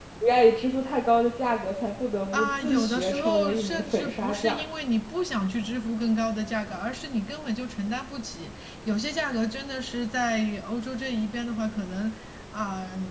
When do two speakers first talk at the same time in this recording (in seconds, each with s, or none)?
2.3 s